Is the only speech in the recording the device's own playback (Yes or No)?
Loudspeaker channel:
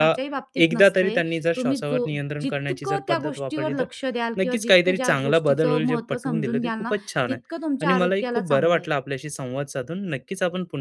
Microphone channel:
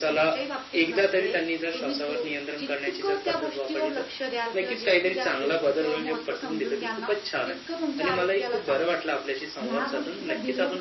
No